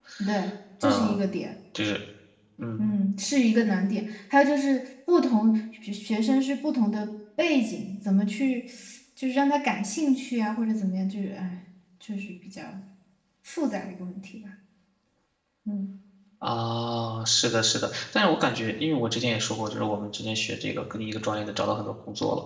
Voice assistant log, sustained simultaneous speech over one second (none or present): none